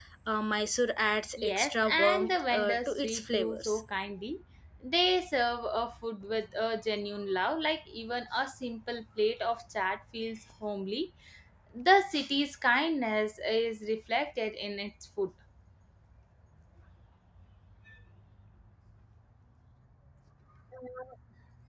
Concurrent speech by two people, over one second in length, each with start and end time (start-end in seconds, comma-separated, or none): 1.4-3.8